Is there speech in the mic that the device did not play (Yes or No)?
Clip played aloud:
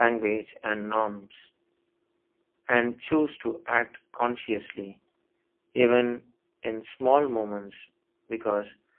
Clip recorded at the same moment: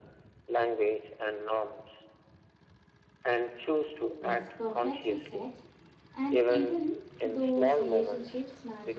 Yes